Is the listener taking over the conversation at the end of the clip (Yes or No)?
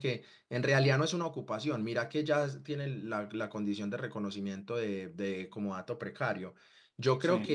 No